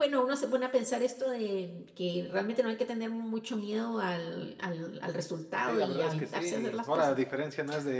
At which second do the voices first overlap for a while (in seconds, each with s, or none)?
5.7 s